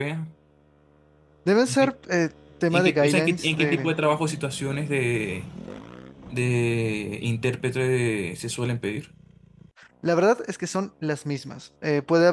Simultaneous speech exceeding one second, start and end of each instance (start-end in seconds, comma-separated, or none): 2.7-3.9